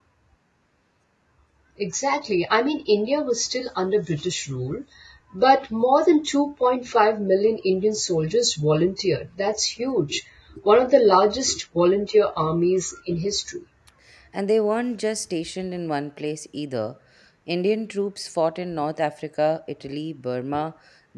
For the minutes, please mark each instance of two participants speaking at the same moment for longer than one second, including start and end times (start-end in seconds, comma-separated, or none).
none